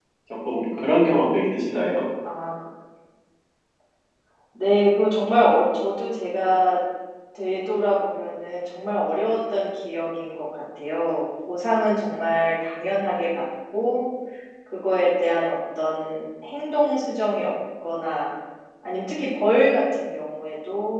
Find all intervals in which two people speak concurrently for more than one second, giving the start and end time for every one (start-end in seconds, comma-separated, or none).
none